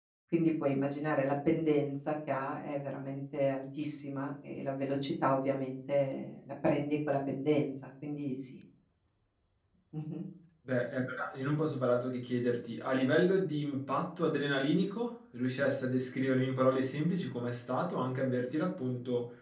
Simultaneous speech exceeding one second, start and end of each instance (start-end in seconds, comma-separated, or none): none